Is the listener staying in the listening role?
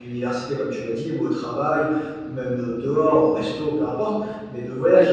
Yes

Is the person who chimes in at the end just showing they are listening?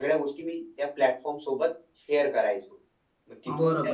No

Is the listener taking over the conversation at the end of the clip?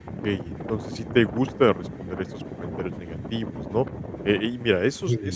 No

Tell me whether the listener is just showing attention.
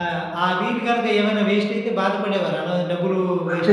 No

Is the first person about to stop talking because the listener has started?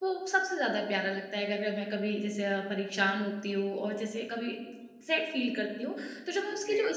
No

